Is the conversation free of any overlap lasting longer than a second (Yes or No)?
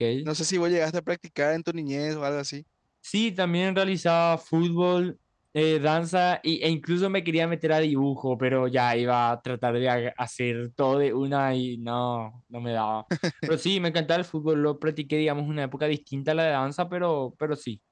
Yes